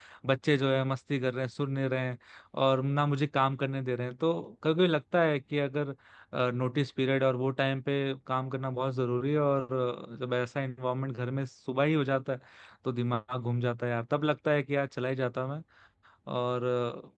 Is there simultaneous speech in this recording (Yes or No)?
No